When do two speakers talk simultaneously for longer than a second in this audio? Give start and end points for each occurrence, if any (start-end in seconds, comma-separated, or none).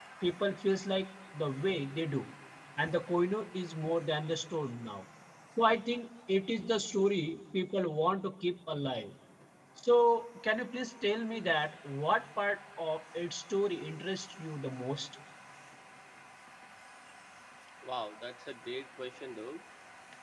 none